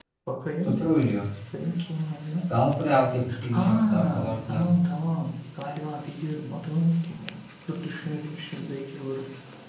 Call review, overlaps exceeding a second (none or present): present